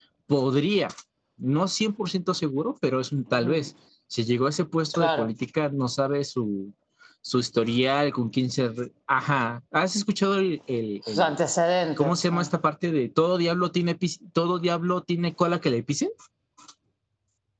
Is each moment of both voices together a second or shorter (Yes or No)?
Yes